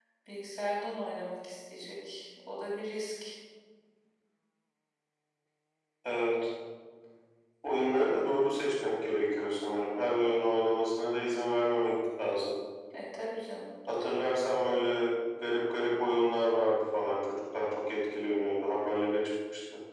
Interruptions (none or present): none